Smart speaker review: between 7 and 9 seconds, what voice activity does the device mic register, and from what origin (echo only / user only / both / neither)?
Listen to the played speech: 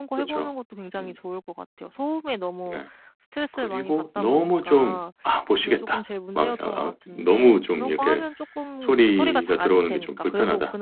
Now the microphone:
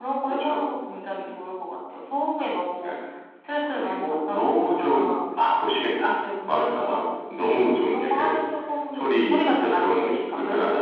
echo only